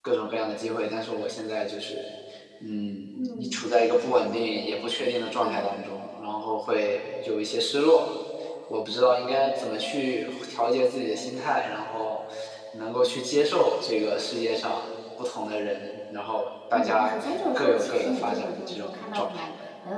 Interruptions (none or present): present